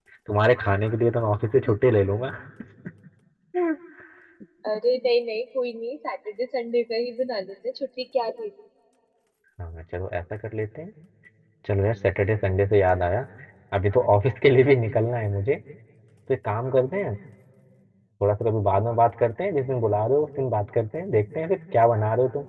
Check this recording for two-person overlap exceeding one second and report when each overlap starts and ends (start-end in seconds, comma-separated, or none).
none